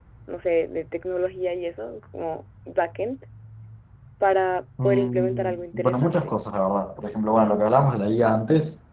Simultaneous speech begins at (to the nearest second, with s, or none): 5 s